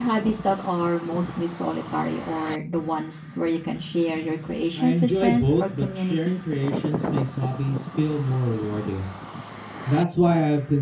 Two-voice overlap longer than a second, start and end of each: 4.7-6.5

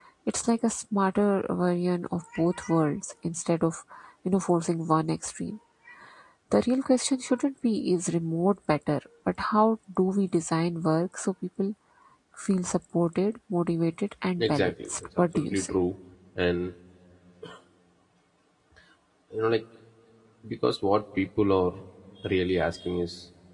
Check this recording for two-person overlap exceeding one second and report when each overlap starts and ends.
14.5-15.7

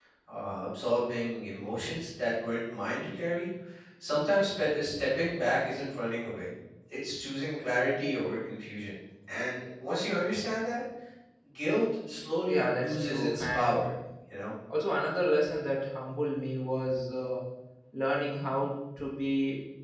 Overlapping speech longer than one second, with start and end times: 12.5-13.8

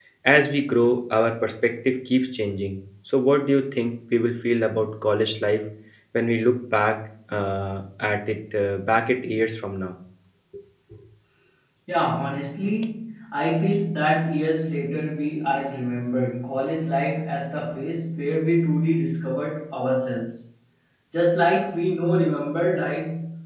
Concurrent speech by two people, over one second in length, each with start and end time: none

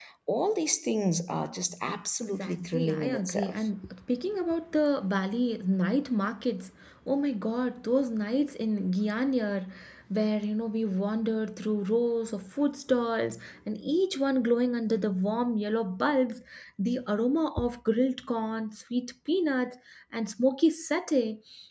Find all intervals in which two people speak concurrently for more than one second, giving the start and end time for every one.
2.4-3.7

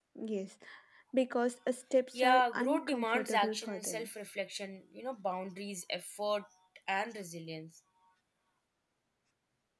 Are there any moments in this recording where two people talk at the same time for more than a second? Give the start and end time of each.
2.1-4.1

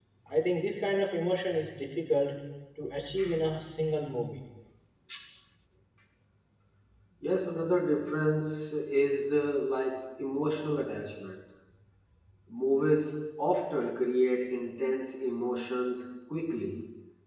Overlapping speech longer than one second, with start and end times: none

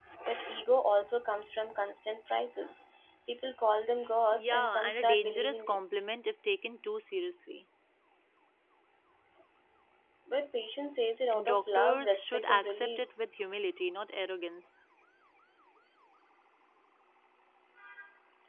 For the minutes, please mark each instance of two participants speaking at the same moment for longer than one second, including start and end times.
4.3-5.8, 11.3-13.0

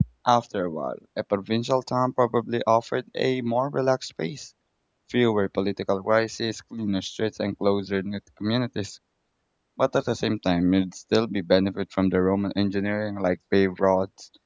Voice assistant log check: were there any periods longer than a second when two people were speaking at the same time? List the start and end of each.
none

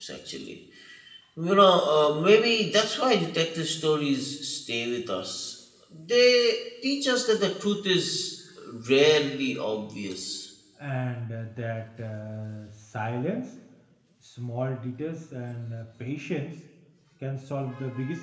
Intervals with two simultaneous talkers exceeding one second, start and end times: none

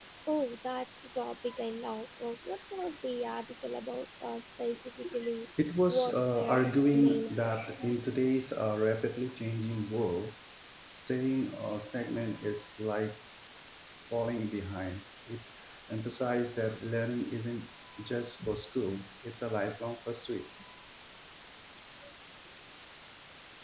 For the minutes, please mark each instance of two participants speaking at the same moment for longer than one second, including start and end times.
5.9-7.8

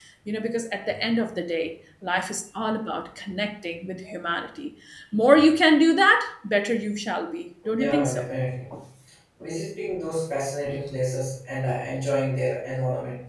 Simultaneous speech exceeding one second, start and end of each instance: none

